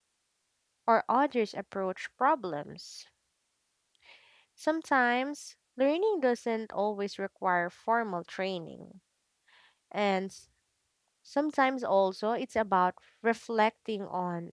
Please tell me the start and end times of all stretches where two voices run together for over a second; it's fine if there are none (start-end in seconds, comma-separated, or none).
none